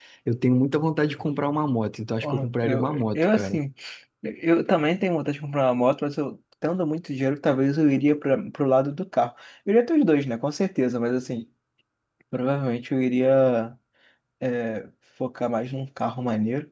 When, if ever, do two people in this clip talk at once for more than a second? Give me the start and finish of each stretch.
2.2-3.6

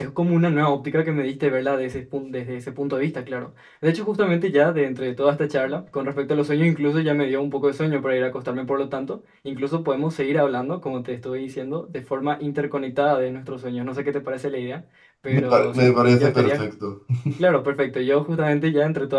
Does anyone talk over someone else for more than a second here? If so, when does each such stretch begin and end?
15.3-16.6

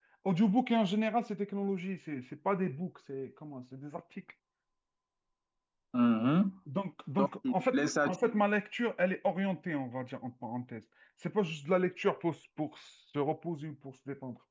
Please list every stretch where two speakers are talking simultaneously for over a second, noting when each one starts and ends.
7.2-8.4

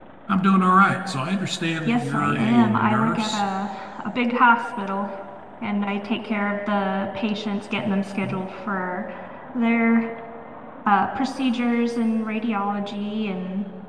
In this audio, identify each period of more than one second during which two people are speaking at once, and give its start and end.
1.9-3.4

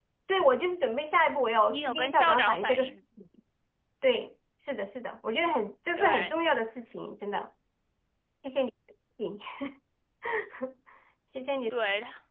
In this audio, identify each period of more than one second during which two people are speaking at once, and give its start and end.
1.7-2.9

